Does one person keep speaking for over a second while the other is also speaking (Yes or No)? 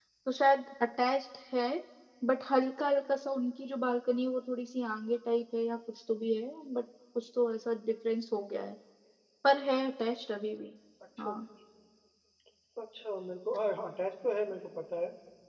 No